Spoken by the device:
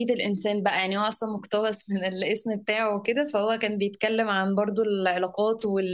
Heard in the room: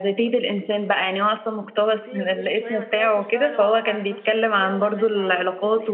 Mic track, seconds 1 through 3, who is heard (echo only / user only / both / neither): both